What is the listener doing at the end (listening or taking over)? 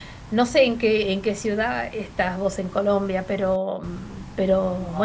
taking over